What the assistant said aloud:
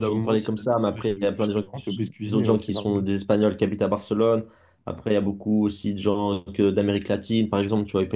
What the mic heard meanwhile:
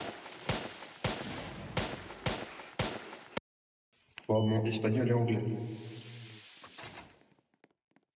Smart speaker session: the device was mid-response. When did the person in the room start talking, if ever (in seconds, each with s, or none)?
4.3 s